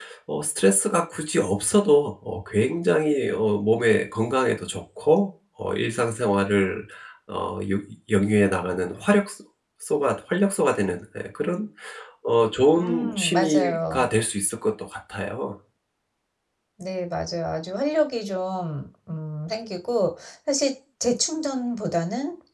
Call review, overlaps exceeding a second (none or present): present